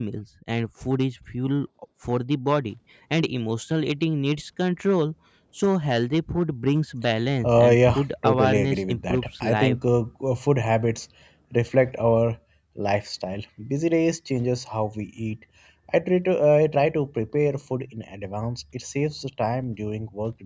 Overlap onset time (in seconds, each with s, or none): 7.4 s